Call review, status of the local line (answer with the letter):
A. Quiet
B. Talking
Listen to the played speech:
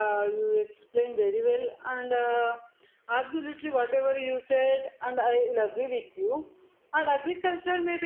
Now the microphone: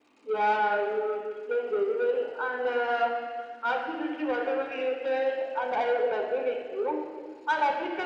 A